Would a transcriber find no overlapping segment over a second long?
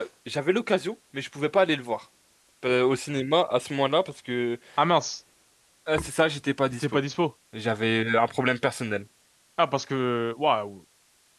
Yes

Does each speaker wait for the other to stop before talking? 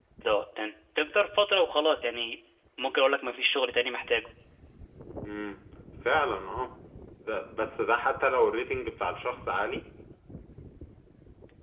Yes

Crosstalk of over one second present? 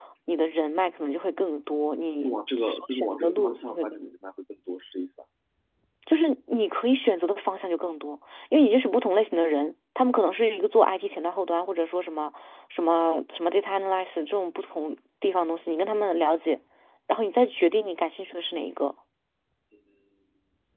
Yes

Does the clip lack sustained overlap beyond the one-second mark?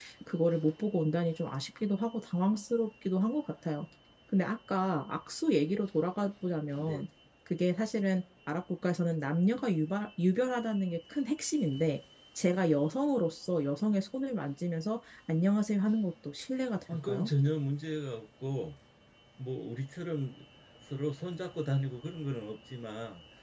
Yes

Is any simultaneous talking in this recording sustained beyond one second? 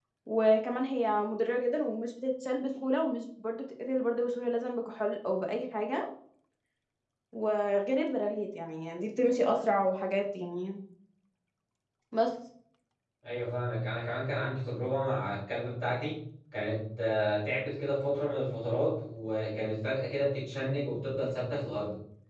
No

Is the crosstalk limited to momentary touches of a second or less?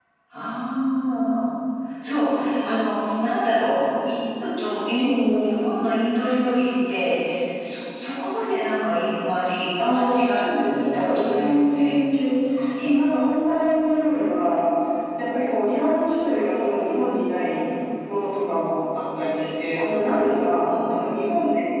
No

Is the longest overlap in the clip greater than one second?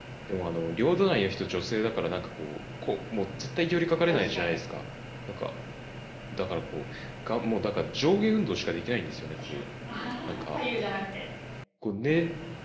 No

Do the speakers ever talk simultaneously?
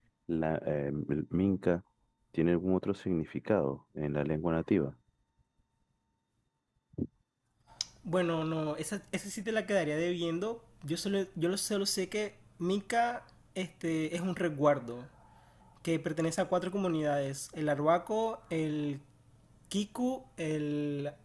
No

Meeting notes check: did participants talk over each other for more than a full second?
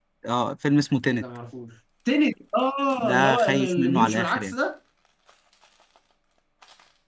Yes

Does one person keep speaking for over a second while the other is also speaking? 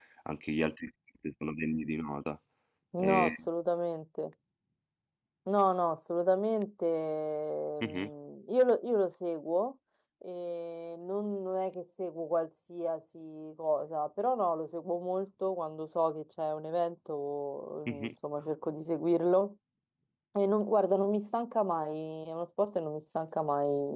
No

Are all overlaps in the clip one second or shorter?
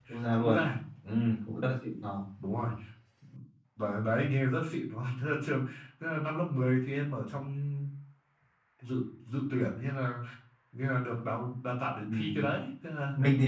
Yes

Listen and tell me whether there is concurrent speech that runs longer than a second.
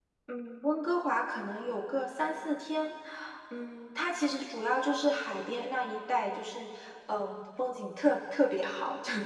No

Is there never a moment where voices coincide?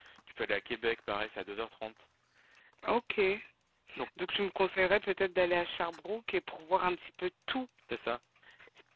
Yes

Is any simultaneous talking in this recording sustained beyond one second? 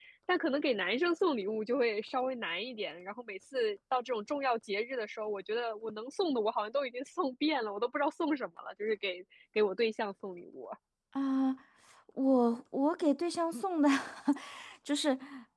No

